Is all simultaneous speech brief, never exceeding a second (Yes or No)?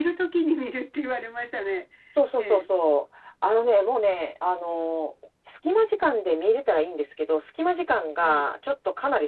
Yes